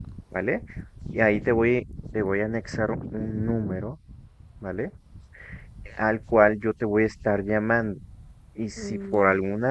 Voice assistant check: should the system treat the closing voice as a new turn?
No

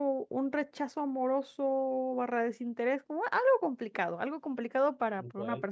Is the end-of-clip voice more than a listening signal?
No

